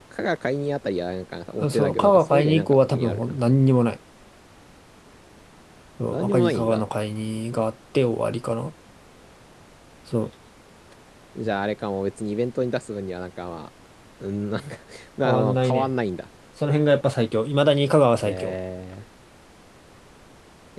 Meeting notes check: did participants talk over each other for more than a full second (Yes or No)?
Yes